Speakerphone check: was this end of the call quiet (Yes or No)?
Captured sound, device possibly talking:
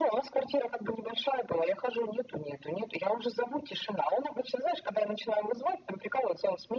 Yes